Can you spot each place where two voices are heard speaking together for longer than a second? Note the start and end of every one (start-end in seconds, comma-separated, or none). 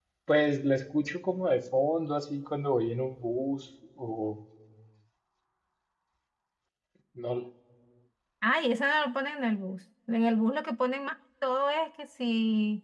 none